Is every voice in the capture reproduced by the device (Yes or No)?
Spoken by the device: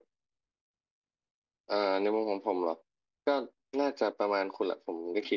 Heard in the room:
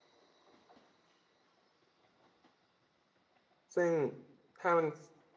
No